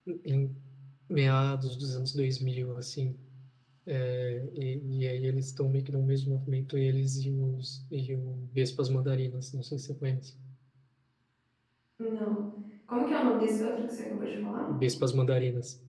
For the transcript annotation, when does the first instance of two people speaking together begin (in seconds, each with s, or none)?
none